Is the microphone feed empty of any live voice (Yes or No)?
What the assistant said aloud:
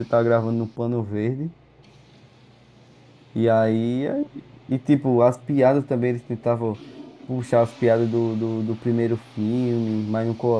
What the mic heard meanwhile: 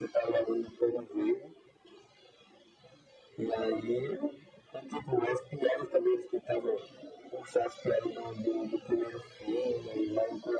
Yes